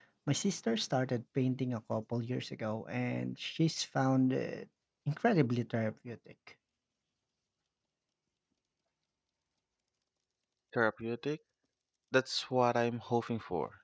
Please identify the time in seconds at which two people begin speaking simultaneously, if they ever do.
none

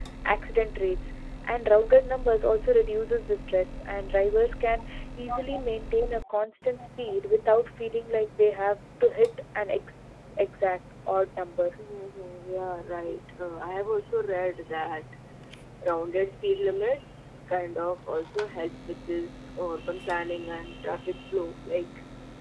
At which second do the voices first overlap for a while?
none

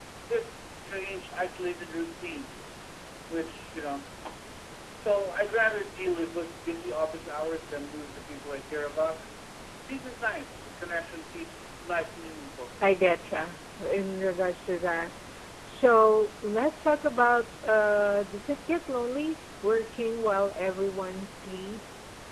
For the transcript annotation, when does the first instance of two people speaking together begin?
none

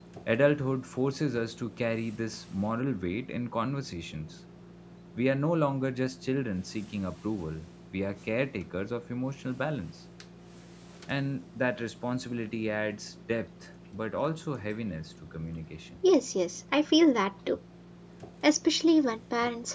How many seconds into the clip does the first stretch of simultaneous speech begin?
none

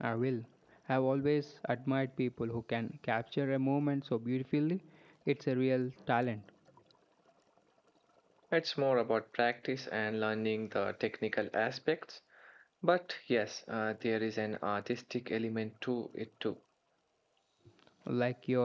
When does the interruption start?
none

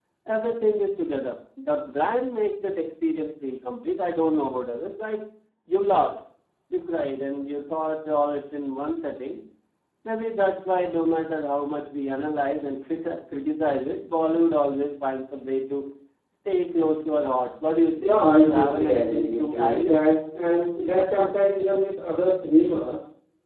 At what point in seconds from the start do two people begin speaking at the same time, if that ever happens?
17.9 s

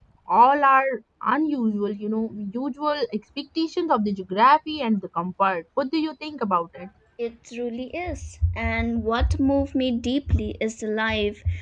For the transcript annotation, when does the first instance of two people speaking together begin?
none

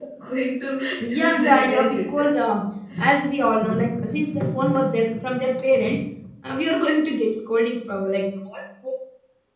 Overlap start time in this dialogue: 1.1 s

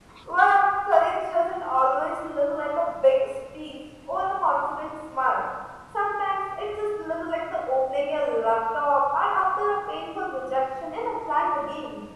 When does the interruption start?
none

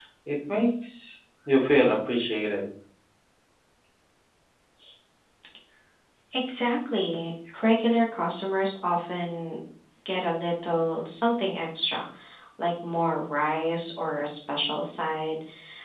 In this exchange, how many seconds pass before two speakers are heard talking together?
none

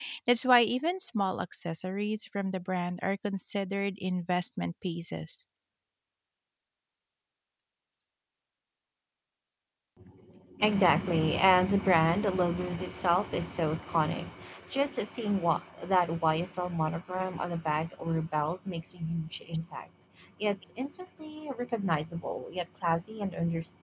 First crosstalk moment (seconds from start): none

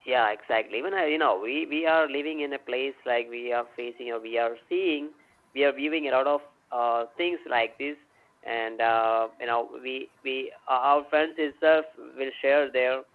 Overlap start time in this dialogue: none

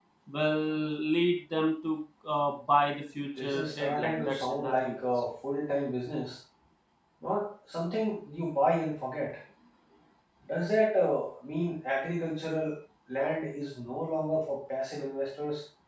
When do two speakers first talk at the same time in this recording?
3.4 s

